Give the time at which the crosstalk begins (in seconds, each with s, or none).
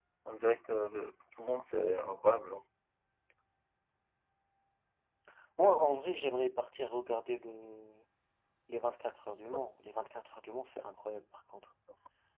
none